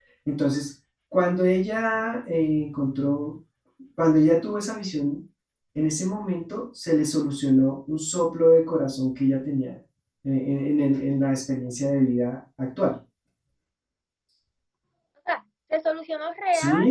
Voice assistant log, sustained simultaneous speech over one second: none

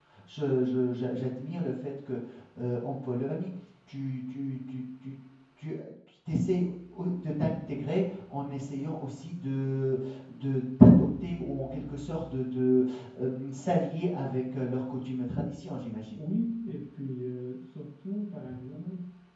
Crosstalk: none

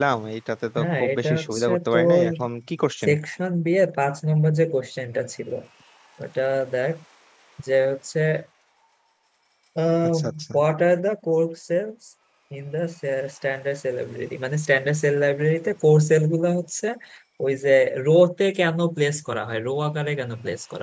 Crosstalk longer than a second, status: present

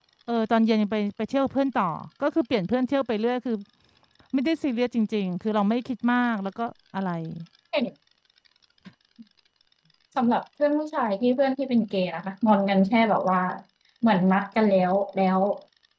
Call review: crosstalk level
none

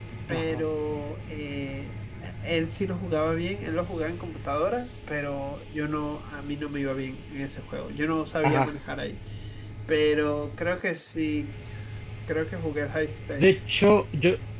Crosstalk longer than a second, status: none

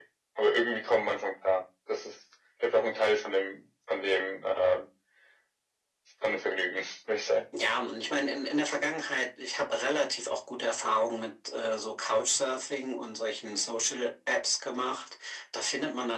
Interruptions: none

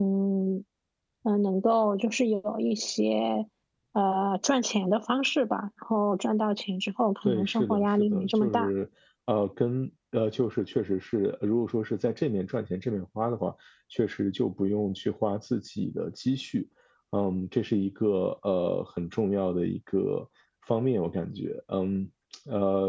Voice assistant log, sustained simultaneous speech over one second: present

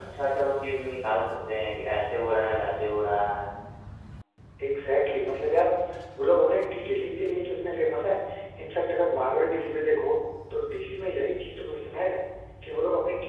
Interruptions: none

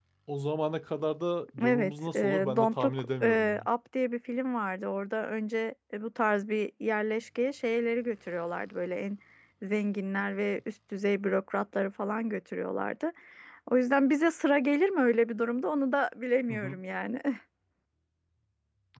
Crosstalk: present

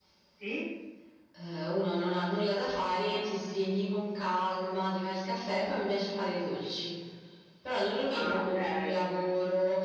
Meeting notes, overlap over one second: present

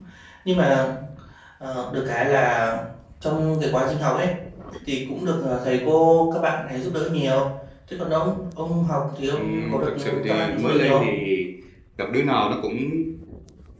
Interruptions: present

